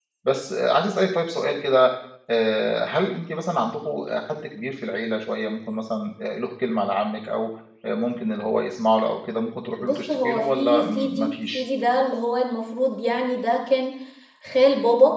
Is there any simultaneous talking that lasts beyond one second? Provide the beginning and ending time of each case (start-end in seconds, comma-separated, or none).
9.8-11.6